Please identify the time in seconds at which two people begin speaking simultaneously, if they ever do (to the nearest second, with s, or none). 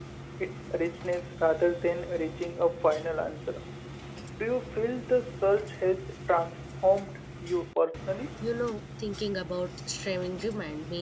none